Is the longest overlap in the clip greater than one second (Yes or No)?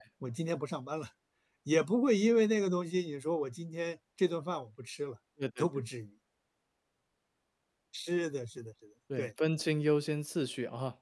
No